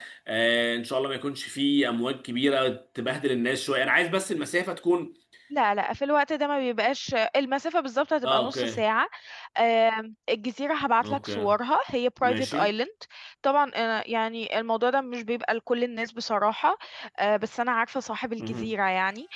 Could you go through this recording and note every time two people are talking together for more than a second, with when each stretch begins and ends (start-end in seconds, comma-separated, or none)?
none